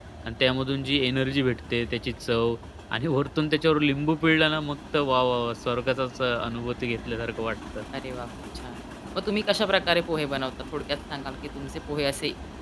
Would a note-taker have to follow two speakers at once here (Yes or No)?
No